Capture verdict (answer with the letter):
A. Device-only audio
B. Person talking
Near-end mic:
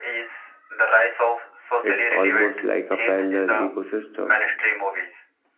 B